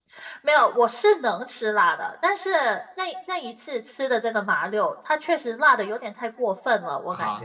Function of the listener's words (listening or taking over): taking over